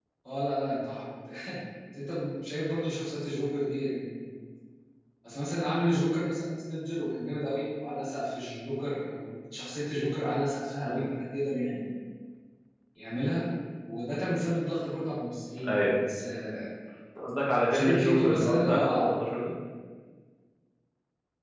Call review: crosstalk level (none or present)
present